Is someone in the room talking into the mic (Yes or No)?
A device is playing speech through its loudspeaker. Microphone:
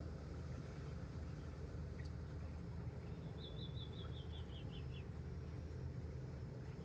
No